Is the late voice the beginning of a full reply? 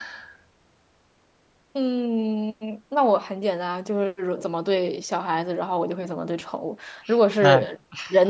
No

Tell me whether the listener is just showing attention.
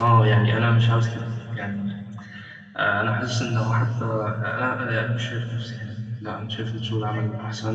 No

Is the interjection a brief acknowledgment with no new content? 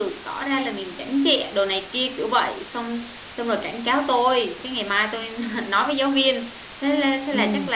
Yes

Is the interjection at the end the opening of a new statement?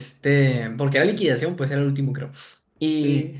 No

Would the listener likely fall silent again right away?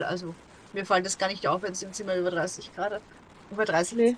Yes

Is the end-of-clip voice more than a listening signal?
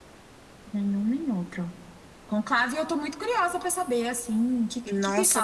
Yes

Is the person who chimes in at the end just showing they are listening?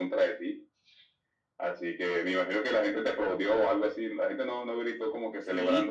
No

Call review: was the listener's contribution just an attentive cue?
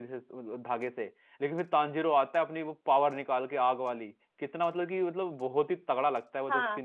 No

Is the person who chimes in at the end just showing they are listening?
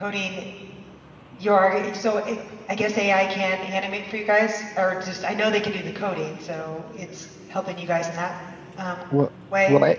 No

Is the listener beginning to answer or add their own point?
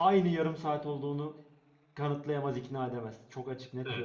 Yes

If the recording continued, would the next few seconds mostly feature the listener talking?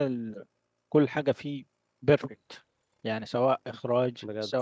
No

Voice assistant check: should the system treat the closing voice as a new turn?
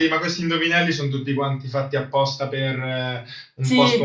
No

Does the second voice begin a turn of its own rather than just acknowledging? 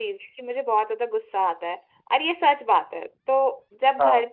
No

